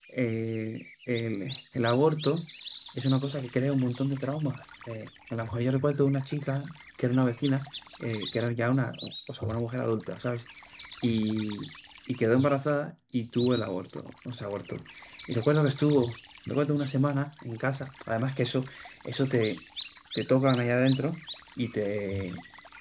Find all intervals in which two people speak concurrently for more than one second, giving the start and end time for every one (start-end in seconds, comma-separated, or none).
none